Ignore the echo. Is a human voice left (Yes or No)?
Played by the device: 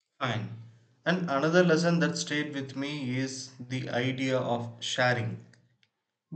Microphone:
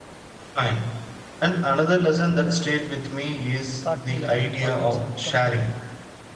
Yes